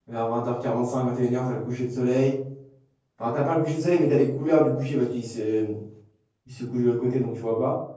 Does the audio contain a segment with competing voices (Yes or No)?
No